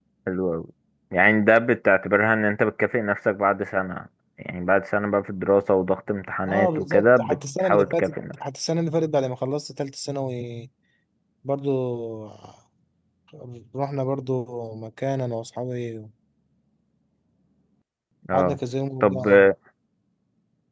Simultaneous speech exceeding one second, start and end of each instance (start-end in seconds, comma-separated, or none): 6.4-8.4